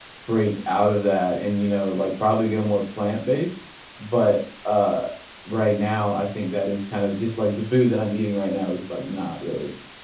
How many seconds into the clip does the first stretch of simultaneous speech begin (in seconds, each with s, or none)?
none